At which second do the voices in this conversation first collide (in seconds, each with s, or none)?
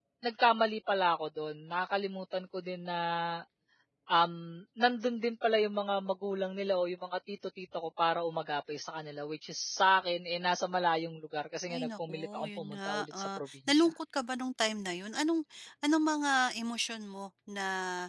11.7 s